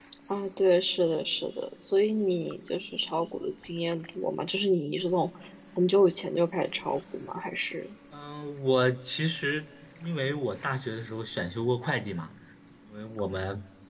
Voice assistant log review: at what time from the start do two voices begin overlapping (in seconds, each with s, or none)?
none